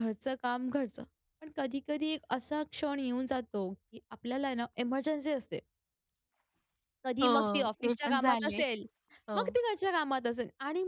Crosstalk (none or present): present